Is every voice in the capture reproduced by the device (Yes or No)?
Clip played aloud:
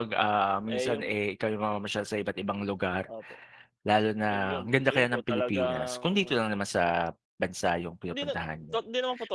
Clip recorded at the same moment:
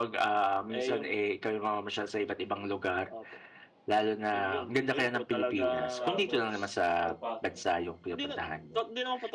No